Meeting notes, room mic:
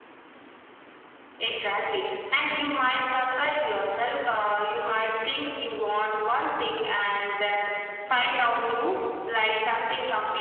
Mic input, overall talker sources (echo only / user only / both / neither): echo only